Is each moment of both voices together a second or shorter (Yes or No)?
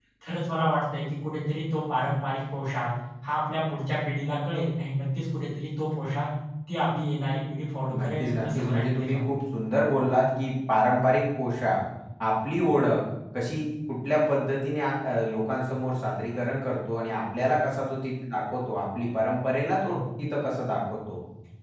No